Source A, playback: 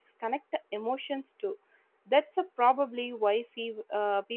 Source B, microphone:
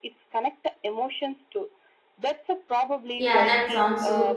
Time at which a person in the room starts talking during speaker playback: 3.2 s

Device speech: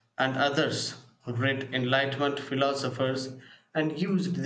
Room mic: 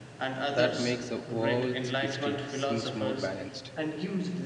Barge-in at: 0.5 s

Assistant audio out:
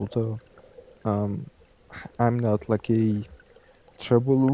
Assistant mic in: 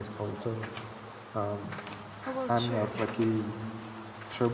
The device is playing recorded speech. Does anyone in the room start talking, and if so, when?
2.2 s

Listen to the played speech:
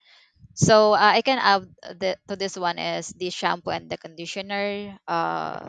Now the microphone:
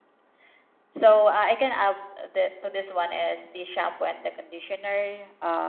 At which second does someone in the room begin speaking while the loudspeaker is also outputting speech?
none

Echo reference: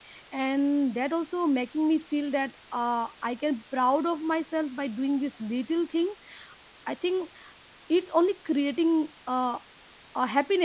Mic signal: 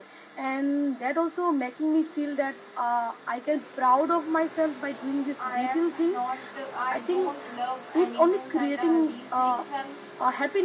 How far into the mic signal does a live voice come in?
5.5 s

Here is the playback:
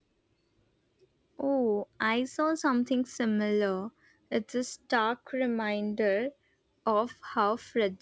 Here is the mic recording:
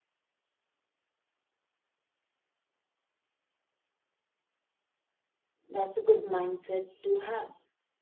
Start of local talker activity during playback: 5.7 s

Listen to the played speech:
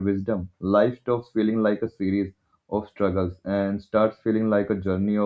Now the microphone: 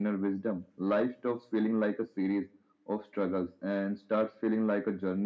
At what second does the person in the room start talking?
none

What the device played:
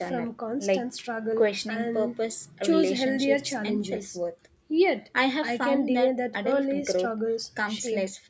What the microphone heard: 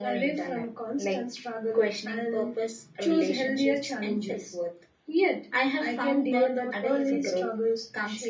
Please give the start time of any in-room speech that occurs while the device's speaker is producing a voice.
6.3 s

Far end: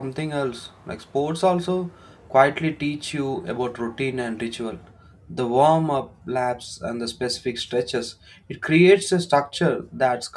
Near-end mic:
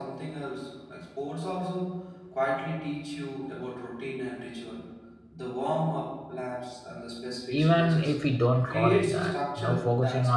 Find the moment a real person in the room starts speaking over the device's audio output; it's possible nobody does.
7.6 s

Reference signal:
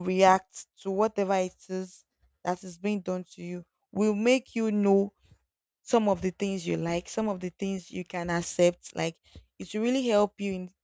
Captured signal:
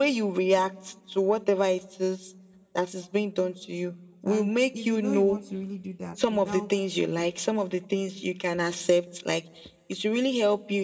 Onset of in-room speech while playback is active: 4.3 s

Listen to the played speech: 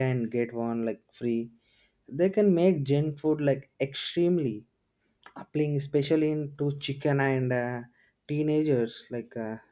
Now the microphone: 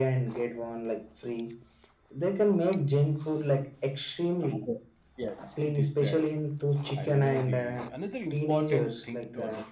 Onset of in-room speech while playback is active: 4.4 s

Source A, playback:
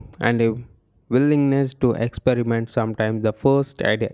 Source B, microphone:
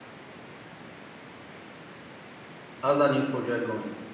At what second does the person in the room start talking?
2.8 s

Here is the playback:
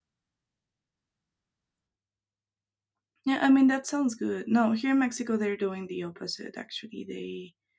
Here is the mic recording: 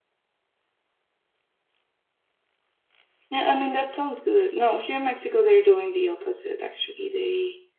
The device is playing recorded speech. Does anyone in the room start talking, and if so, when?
none

